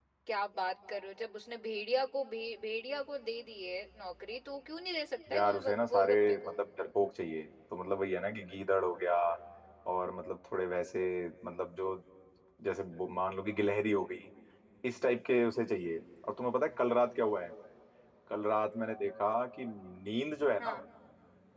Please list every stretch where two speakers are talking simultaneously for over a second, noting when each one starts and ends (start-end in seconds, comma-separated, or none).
5.3-6.6